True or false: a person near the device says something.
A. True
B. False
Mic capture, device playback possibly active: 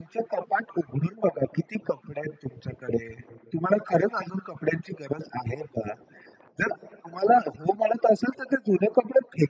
B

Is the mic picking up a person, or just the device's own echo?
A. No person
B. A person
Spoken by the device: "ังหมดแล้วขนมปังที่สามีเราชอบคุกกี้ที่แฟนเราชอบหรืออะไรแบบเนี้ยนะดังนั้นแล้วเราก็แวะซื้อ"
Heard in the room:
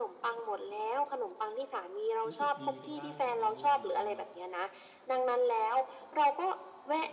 B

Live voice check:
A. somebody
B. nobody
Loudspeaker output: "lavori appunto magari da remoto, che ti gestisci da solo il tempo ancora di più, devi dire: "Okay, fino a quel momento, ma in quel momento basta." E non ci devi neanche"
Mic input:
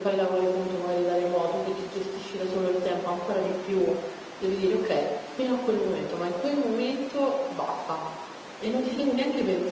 B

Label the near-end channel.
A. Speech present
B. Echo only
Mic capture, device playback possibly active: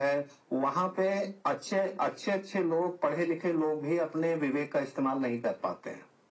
B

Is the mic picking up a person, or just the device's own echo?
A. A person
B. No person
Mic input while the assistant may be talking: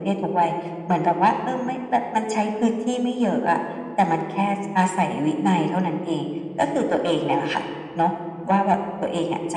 B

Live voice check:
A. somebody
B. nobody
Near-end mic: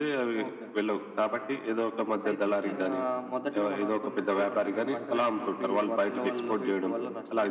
B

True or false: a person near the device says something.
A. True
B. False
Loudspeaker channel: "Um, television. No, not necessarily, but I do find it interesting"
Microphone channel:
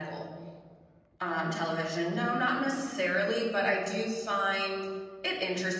B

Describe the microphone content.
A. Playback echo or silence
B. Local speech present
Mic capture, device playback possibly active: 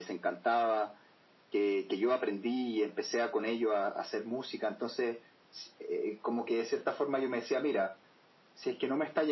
A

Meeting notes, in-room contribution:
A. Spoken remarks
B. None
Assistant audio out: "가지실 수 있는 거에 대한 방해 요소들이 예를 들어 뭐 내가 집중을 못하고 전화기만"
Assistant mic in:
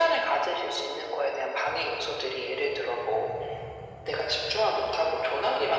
B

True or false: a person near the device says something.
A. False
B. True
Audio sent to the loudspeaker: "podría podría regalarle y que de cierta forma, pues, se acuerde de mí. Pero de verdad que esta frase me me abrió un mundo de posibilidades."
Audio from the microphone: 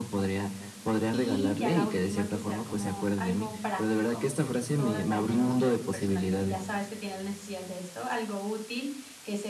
B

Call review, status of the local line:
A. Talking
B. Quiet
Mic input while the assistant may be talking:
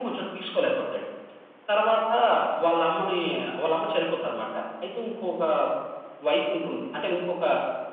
B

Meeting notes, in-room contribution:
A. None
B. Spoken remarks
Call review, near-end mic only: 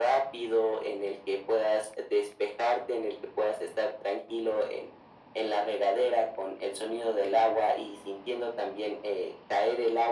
A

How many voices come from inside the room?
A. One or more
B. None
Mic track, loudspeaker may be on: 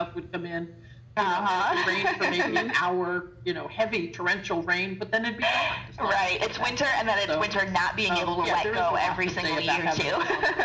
A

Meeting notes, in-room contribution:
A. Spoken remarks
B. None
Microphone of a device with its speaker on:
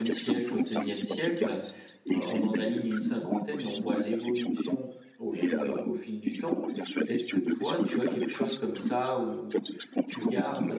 A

